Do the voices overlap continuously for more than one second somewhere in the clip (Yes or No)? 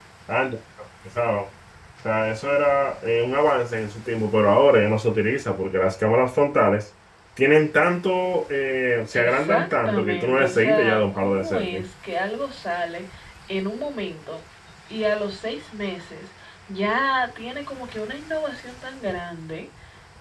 Yes